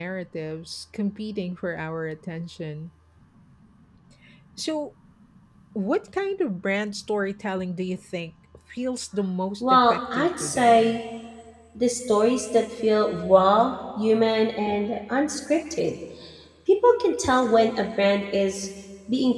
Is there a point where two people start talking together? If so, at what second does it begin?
9.6 s

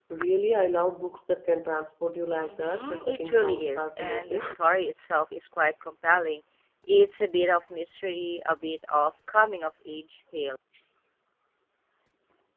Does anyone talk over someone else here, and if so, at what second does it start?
2.4 s

